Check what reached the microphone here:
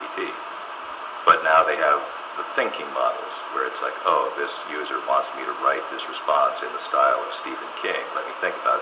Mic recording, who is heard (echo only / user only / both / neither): echo only